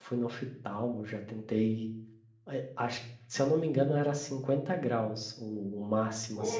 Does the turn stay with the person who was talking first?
Yes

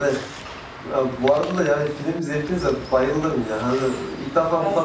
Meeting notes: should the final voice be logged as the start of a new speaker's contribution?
No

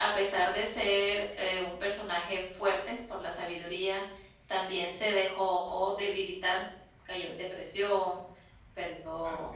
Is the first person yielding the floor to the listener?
No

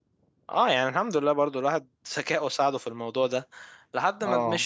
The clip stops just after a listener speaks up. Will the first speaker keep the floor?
Yes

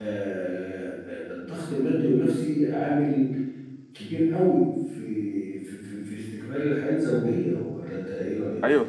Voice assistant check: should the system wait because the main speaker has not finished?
No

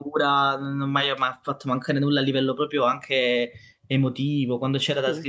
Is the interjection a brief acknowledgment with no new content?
Yes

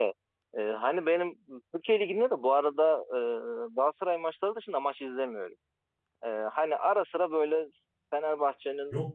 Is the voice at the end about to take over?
No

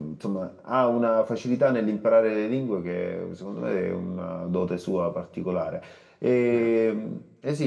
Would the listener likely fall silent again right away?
Yes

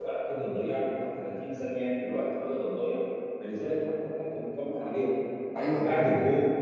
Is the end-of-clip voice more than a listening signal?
No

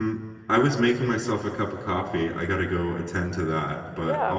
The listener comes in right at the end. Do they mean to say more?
No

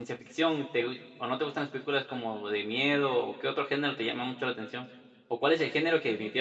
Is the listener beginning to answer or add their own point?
No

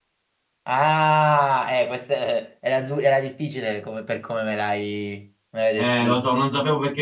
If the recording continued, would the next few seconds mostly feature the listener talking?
Yes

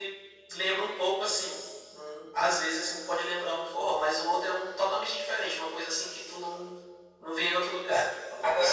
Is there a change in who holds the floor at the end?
Yes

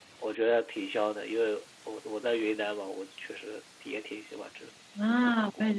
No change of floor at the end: No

